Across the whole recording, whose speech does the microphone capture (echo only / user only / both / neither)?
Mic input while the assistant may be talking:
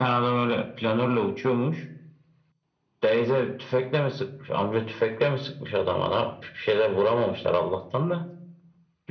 echo only